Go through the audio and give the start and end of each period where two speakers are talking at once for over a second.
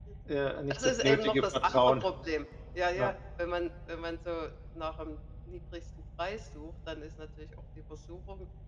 0.7-2.0

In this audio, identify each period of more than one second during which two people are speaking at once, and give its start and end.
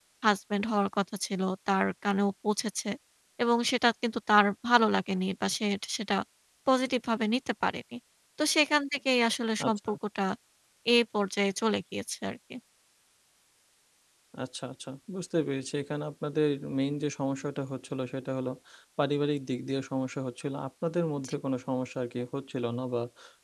none

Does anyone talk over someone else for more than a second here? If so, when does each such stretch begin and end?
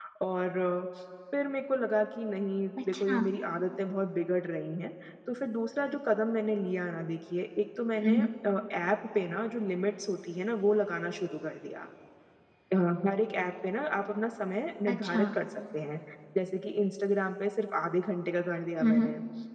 none

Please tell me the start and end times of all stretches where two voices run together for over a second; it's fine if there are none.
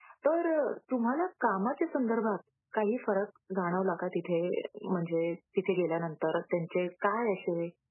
none

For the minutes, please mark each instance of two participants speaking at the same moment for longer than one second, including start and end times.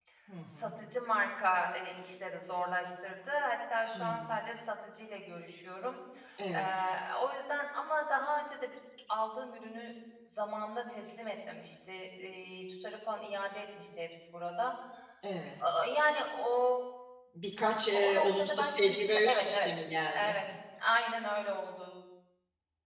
17.9-19.7

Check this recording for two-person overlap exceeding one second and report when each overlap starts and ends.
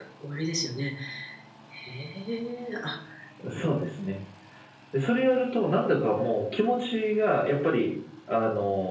none

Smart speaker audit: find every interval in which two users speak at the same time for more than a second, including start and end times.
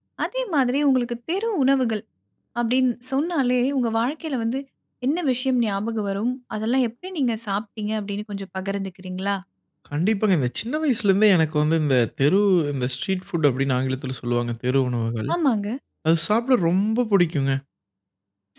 none

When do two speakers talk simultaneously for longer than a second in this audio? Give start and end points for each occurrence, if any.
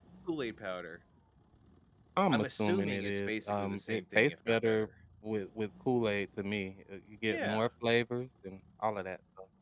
2.3-4.9

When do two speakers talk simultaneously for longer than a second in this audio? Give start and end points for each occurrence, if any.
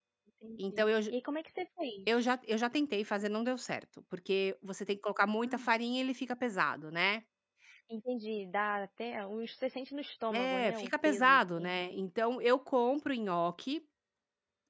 10.3-11.9

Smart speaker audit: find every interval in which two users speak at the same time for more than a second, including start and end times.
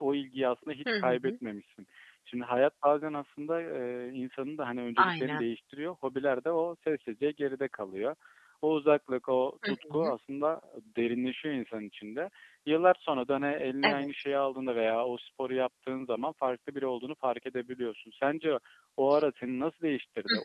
none

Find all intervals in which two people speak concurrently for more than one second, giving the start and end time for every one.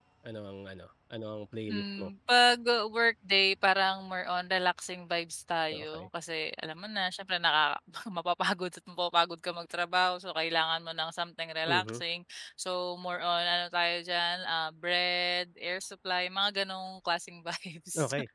none

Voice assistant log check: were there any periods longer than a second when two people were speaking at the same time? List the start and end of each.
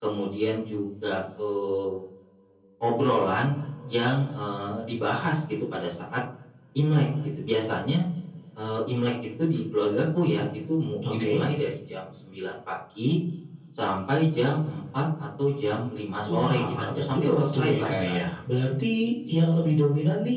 16.3-18.2

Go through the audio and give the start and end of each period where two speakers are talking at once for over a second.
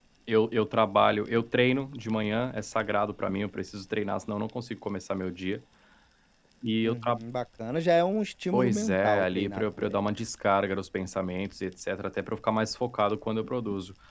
8.5-10.1

